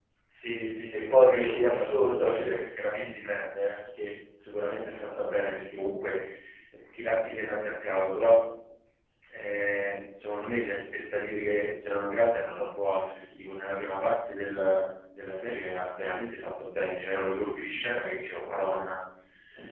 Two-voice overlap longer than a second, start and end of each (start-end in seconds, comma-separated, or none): 0.9-2.5